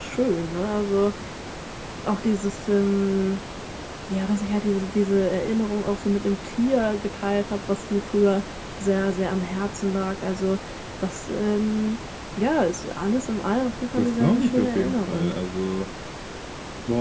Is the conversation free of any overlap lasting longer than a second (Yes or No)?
No